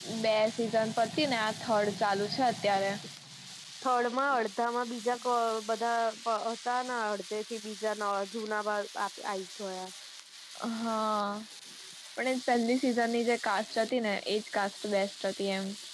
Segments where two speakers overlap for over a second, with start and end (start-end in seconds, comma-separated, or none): none